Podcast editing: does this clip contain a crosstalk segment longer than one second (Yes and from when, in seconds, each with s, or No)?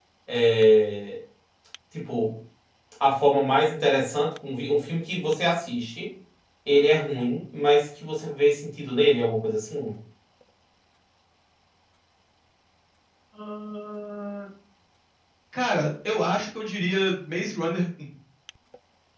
No